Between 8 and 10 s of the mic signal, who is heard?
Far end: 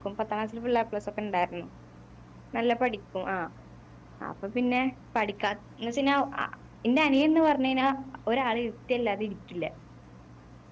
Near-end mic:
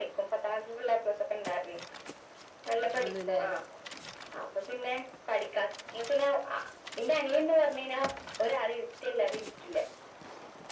echo only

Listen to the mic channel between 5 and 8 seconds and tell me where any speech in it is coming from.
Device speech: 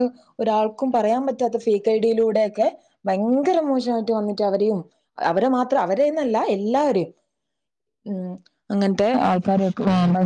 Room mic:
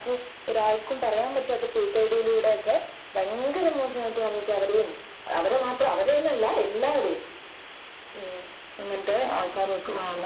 echo only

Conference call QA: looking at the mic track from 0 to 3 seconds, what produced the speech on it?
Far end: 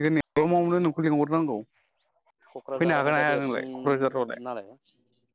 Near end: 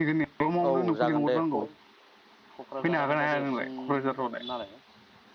both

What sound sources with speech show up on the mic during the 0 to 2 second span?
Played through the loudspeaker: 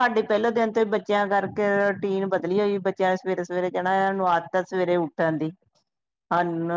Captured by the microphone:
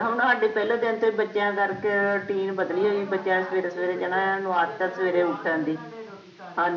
echo only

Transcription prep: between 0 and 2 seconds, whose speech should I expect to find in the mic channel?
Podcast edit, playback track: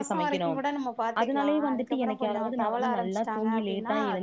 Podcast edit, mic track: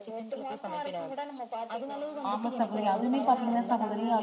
echo only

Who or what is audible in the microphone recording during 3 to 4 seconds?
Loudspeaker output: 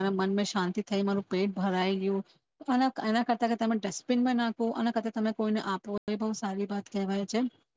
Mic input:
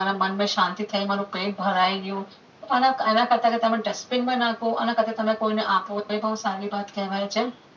echo only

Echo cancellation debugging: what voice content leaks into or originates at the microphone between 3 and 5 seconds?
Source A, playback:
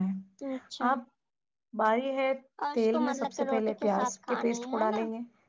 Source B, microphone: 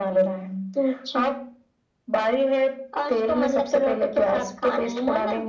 echo only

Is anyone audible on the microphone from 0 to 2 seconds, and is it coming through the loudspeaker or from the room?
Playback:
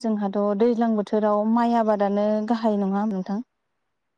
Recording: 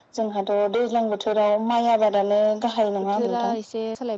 echo only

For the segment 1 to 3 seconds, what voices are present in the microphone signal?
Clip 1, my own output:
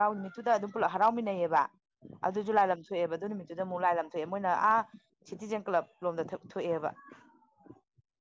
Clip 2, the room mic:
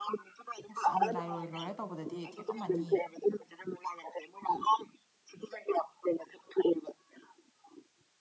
both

